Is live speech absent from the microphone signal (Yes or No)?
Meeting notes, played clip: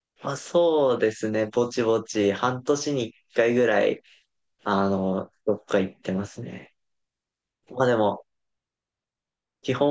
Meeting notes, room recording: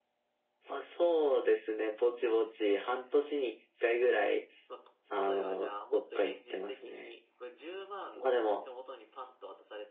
No